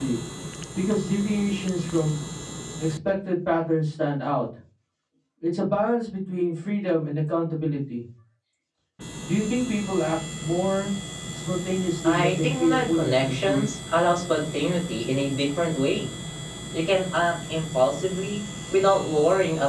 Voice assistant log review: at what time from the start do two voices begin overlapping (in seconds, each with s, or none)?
12.0 s